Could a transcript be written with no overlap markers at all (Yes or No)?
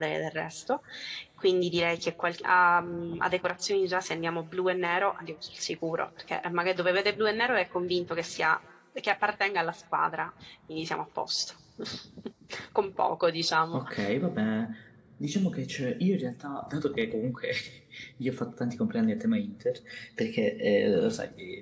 Yes